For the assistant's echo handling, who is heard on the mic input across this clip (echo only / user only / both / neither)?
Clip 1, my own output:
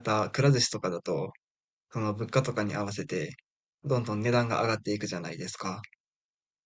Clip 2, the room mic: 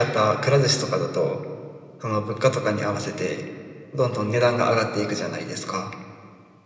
echo only